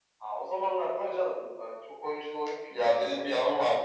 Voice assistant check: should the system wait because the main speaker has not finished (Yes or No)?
No